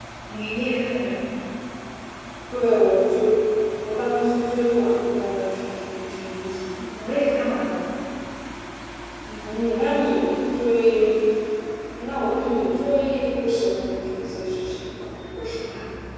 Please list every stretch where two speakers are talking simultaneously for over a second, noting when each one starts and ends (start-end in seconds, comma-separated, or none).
none